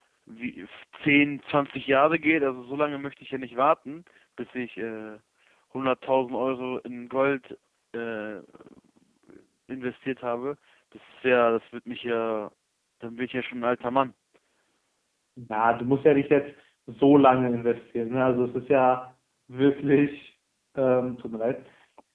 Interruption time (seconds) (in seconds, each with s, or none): none